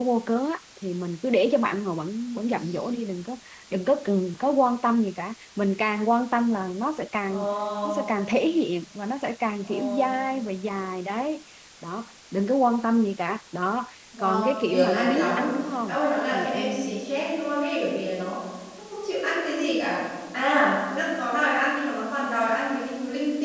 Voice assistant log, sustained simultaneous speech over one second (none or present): present